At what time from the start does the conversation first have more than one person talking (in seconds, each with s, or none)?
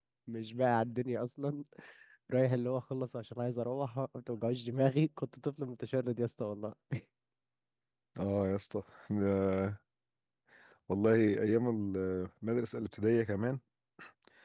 none